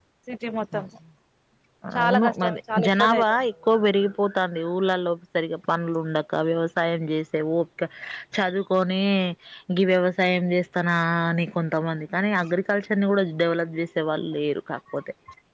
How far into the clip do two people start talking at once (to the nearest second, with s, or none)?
2 s